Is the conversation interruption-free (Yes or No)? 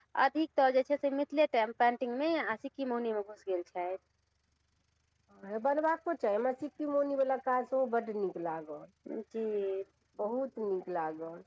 Yes